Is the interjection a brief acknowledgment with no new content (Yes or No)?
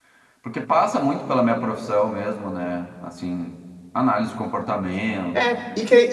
No